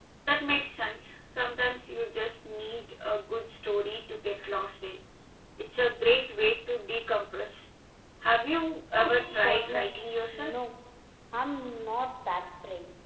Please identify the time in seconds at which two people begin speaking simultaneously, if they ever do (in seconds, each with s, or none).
9.0 s